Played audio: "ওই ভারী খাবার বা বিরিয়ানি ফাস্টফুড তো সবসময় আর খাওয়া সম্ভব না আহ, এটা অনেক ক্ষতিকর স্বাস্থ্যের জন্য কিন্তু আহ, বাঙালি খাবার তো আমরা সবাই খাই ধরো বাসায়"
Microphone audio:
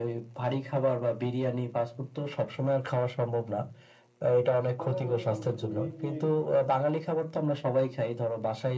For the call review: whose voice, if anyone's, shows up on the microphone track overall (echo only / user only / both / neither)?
both